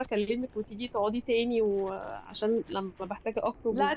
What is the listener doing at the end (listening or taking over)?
taking over